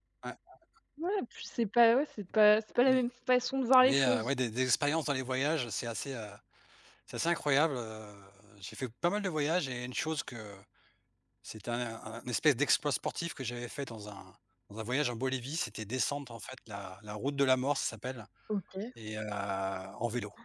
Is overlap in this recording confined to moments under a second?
Yes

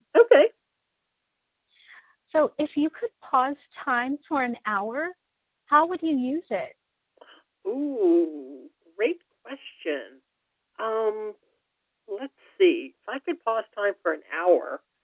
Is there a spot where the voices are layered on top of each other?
No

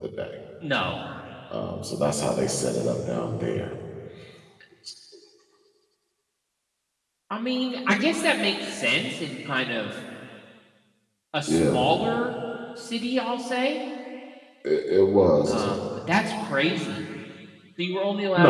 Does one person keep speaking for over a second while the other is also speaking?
No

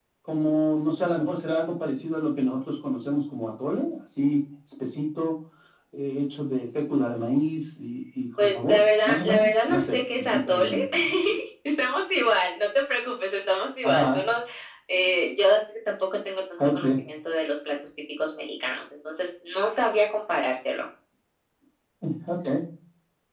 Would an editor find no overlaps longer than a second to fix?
No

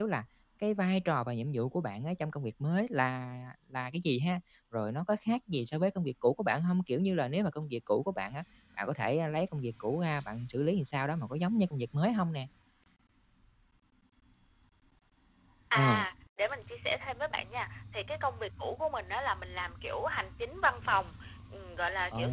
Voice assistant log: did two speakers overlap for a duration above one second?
No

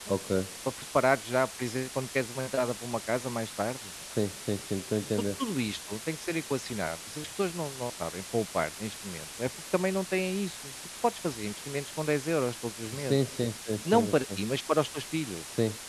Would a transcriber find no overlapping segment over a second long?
Yes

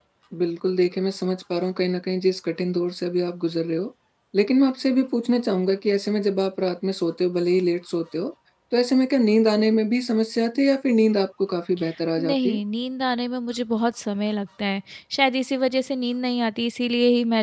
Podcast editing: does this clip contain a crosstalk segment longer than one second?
No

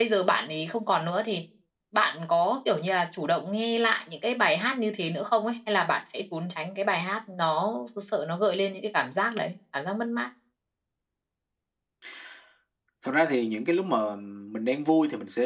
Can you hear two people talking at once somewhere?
No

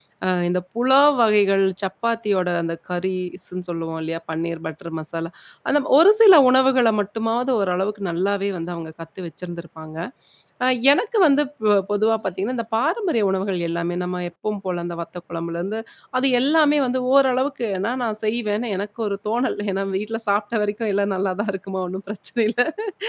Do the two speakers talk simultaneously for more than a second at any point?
No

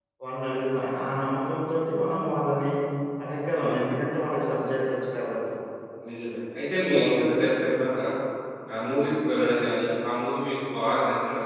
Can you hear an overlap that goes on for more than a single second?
No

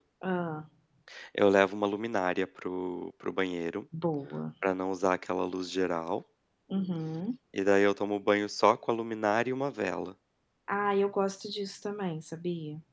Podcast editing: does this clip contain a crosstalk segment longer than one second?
No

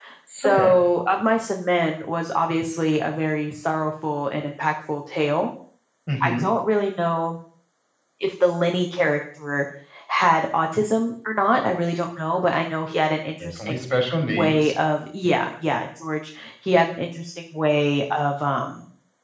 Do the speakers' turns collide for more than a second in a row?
No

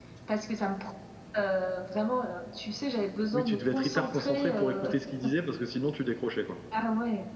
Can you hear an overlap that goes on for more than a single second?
Yes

